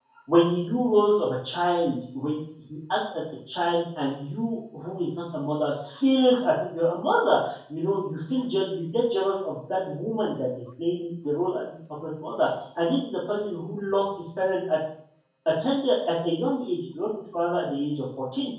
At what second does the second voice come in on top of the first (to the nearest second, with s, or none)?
none